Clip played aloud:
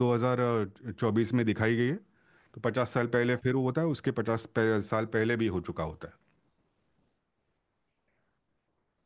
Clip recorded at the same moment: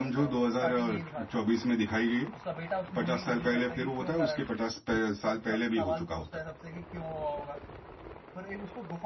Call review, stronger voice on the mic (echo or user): echo